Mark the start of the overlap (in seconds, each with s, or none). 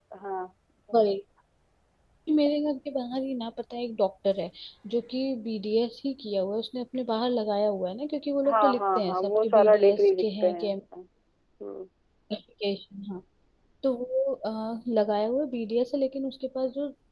8.4 s